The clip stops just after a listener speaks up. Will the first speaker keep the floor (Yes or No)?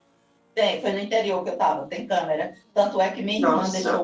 Yes